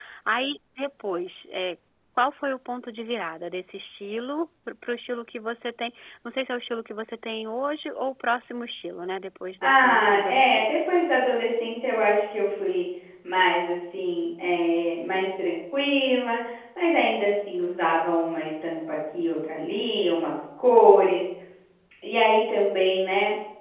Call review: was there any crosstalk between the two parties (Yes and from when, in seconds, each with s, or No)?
Yes, from 9.6 s